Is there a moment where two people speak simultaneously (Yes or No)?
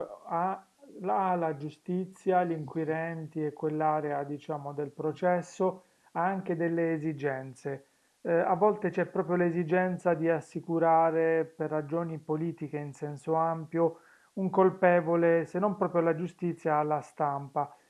No